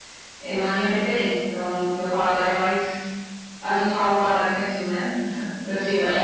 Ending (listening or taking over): taking over